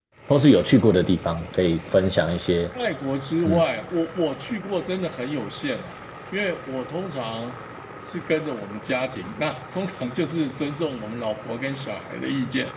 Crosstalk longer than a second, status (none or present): none